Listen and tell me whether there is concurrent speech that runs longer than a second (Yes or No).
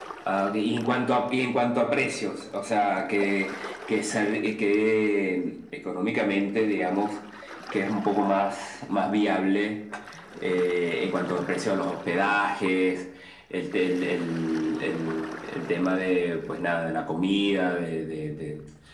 No